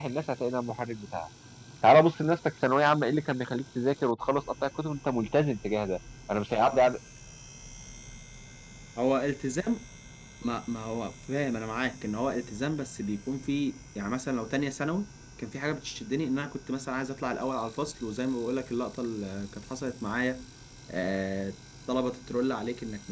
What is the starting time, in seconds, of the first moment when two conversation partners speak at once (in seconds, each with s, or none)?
none